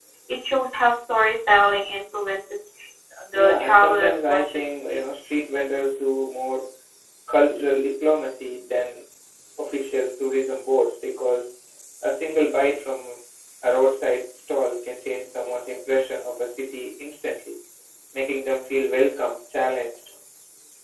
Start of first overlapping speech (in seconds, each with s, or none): 3.3 s